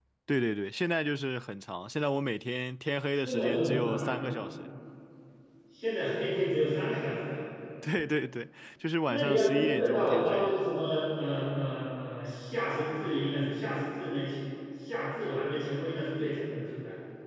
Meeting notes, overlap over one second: present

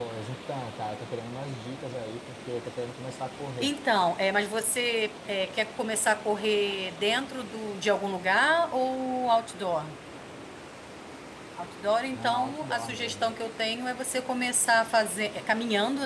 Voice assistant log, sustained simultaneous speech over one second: present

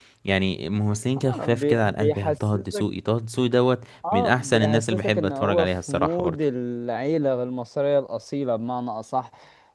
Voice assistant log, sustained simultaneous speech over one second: present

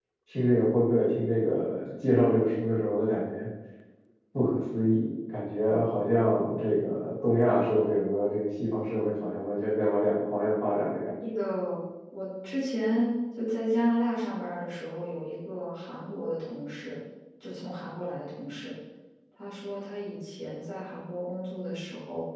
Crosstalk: none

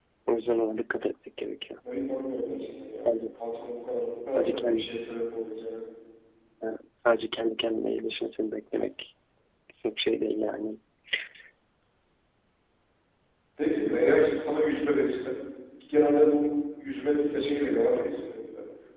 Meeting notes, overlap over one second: none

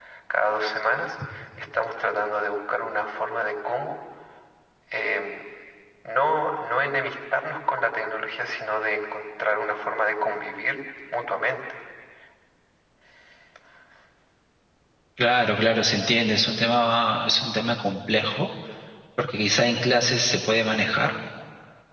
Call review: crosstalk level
none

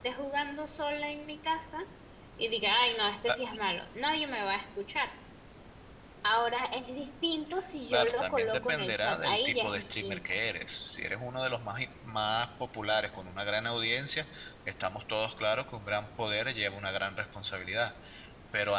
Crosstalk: present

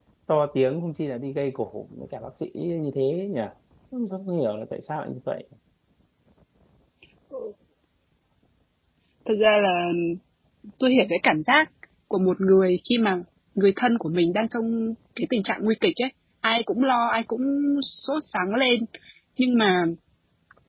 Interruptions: none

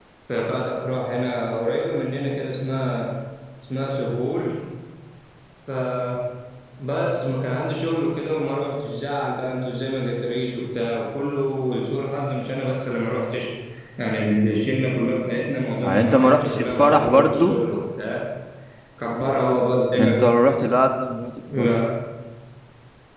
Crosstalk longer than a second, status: present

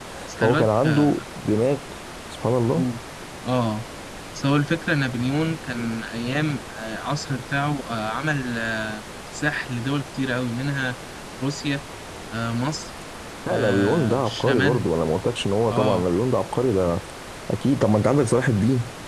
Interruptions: present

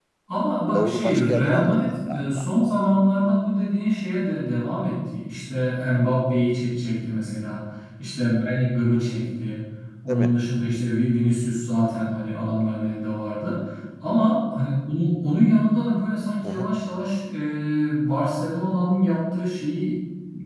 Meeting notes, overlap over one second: present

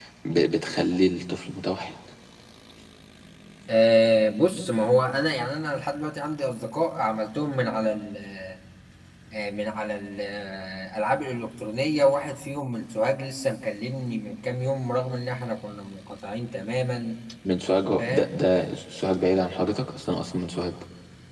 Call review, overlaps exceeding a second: none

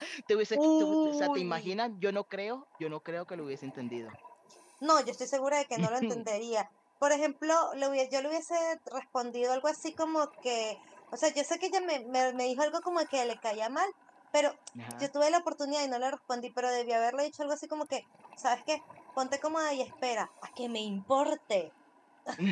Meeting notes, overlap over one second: present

